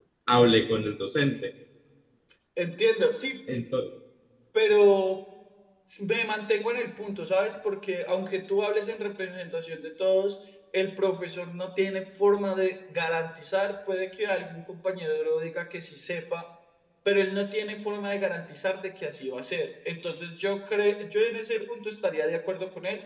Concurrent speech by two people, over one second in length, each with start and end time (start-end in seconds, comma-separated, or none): none